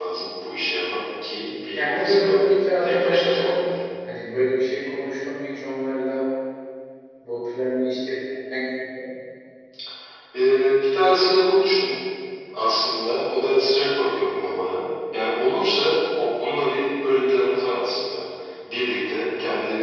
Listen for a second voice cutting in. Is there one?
Yes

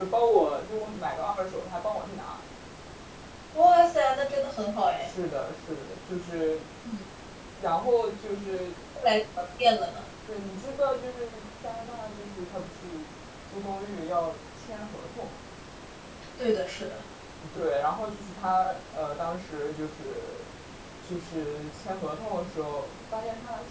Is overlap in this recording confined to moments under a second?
Yes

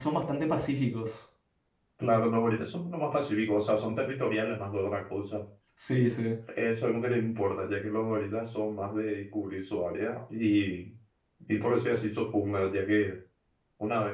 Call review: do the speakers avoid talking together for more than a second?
Yes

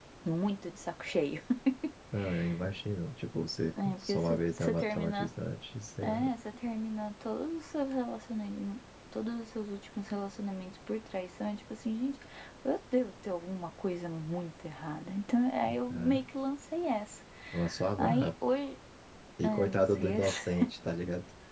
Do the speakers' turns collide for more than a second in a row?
Yes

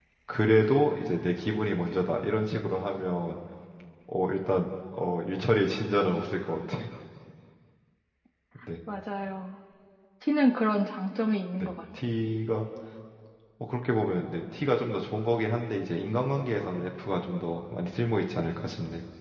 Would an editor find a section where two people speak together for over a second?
No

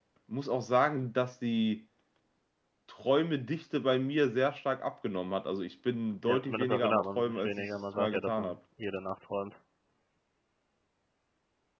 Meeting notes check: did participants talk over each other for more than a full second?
Yes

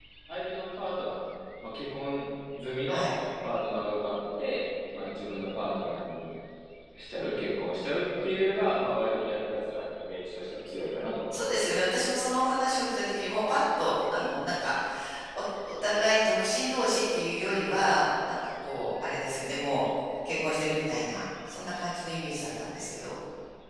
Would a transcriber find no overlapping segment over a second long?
Yes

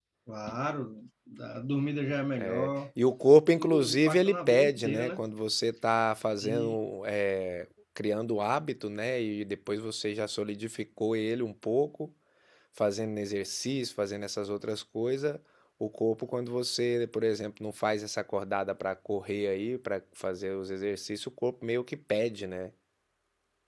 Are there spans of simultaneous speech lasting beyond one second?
Yes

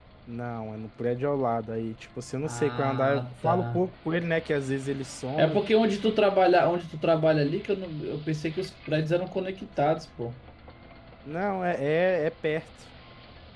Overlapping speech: Yes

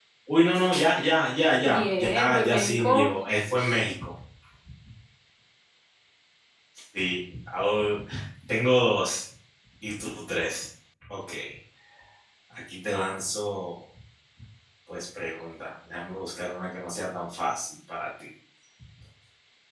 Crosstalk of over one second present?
Yes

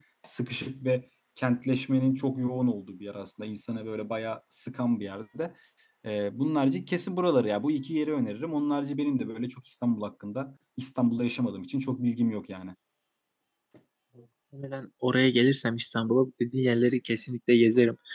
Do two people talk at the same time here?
No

